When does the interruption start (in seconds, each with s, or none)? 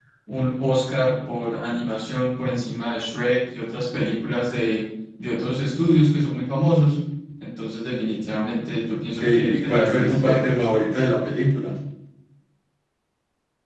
9.2 s